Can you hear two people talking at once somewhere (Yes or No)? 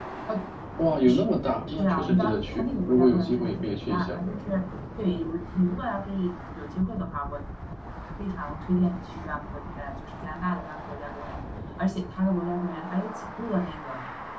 Yes